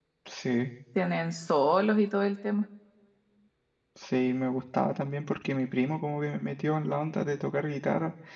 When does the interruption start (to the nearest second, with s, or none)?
none